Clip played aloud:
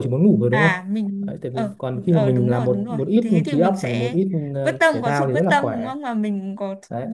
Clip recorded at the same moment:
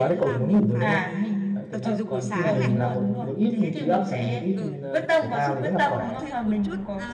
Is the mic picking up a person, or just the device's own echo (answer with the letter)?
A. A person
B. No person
A